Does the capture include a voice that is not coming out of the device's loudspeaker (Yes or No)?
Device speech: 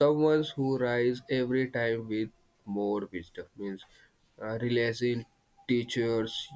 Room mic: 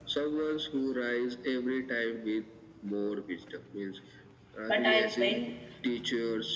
Yes